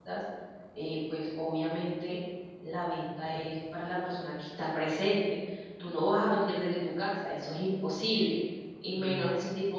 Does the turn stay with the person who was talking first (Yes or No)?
Yes